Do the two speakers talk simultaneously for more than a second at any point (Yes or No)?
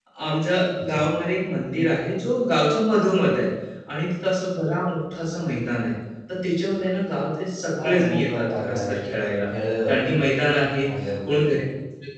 Yes